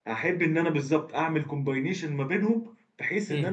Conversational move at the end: listening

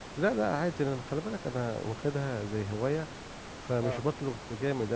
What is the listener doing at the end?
listening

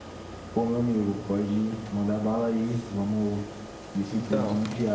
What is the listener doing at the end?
listening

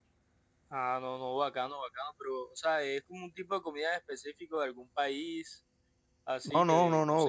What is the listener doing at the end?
taking over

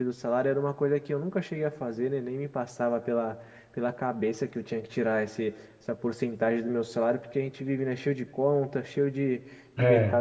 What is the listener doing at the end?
listening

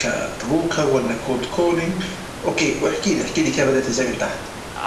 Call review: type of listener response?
taking over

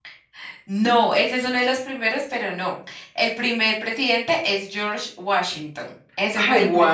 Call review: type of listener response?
taking over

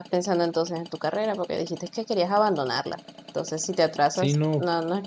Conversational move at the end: taking over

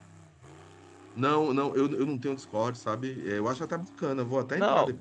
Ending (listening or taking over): taking over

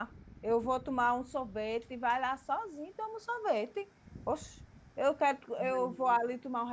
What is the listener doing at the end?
listening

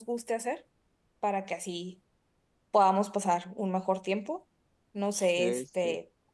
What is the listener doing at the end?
listening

